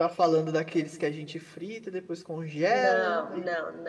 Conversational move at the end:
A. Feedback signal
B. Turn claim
B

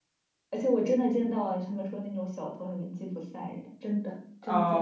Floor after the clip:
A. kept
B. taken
B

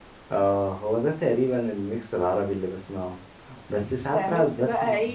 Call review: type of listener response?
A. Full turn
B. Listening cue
A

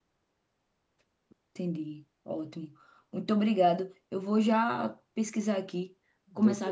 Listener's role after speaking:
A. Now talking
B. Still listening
B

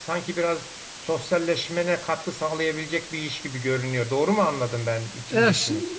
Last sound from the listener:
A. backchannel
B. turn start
B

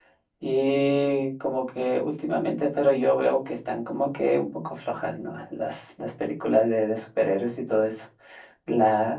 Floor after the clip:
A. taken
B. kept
B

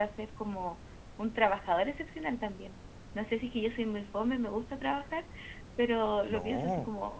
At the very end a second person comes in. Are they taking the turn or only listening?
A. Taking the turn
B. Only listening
B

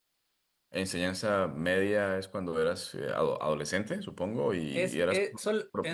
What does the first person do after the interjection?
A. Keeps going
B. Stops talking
B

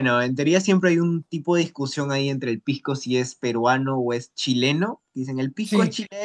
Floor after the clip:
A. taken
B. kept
B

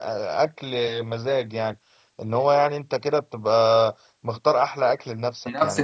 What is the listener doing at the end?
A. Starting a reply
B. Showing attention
A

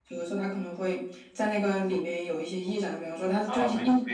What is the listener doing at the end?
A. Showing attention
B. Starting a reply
B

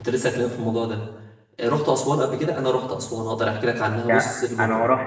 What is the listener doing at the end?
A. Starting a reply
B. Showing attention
A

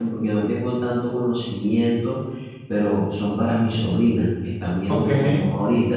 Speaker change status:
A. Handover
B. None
B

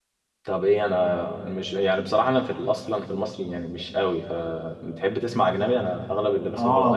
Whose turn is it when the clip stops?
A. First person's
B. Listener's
B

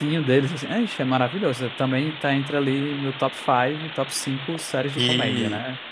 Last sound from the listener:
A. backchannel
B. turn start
B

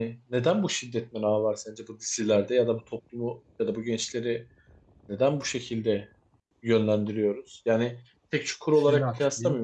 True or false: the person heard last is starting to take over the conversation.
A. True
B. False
B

